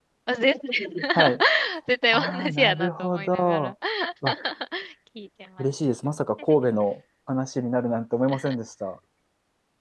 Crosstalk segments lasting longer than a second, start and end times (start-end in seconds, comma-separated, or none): 2.1-3.7